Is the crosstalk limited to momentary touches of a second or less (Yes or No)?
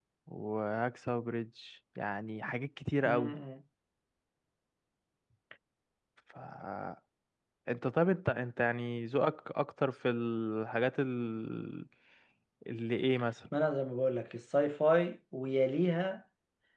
Yes